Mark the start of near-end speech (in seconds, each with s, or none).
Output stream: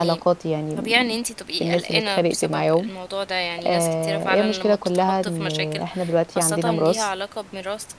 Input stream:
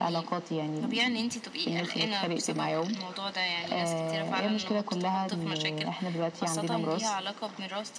none